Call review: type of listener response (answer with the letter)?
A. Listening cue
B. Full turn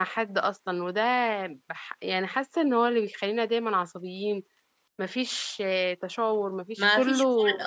B